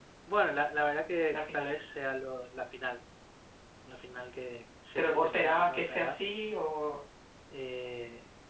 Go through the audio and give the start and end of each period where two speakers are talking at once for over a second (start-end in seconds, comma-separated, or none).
5.0-6.3